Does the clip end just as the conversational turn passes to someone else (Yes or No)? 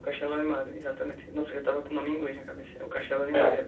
No